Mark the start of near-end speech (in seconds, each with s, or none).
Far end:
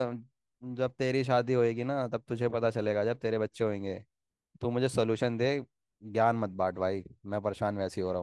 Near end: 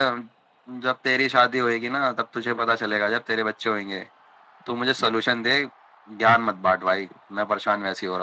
none